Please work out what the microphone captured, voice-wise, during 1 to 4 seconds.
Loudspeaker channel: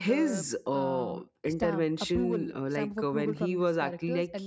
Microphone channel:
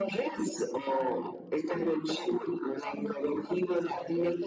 echo only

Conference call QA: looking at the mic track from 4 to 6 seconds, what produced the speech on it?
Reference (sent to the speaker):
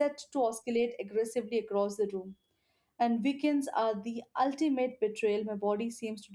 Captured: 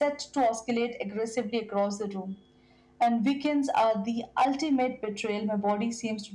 echo only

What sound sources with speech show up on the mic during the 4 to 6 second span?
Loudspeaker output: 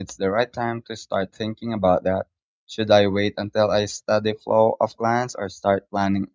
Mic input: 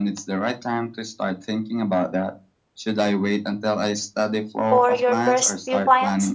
both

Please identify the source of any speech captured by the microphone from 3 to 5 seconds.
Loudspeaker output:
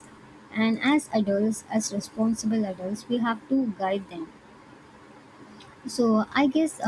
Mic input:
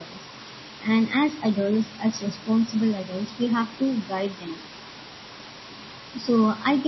echo only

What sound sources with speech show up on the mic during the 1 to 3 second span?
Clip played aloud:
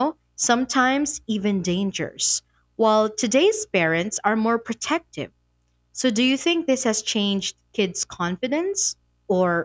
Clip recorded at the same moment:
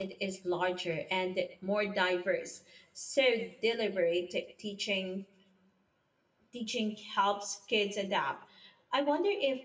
user only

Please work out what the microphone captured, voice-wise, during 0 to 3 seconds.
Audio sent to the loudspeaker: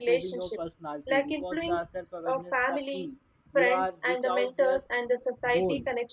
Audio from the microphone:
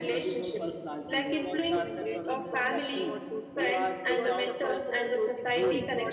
both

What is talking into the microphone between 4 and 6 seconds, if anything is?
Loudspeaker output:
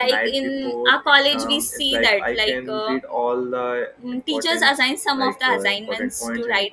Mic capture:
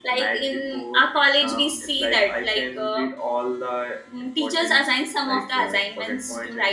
echo only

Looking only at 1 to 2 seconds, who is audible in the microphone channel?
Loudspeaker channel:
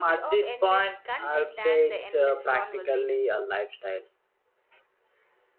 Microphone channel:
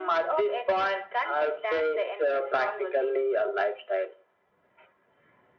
echo only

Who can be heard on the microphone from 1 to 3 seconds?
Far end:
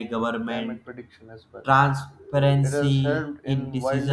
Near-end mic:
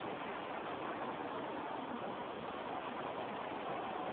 neither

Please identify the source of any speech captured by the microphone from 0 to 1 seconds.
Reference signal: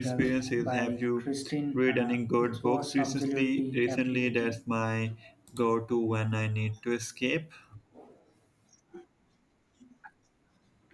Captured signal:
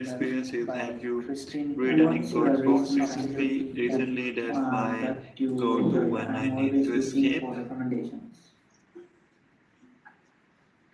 echo only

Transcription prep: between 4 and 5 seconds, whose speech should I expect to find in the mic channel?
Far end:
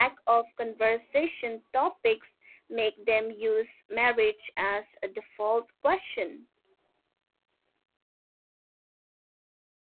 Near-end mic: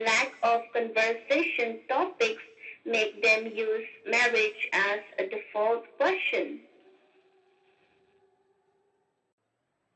echo only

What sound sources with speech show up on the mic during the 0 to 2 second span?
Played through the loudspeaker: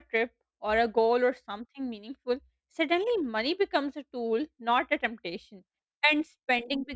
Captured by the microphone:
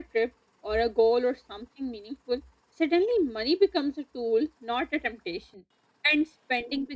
echo only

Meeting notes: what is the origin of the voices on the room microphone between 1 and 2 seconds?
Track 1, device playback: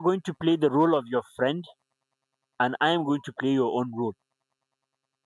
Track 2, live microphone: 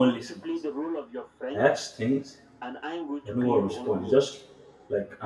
both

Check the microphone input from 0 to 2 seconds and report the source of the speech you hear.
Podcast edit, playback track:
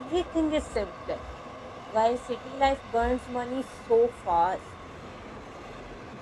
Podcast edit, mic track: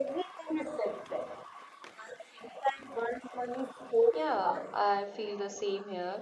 echo only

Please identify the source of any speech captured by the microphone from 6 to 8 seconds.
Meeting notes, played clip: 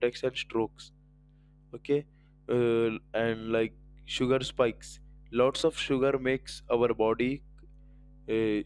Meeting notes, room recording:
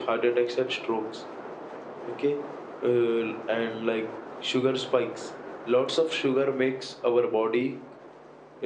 echo only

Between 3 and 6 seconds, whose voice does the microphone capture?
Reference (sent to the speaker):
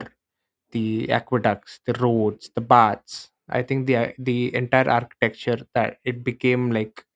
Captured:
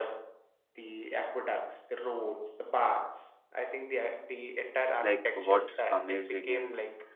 both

